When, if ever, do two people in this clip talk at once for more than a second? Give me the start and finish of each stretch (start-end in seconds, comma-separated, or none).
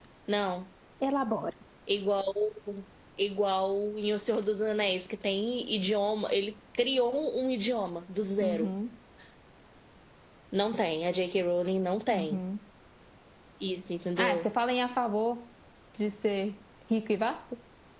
none